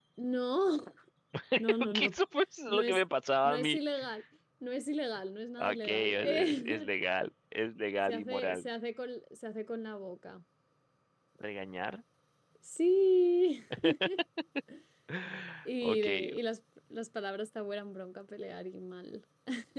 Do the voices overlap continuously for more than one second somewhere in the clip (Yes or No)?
Yes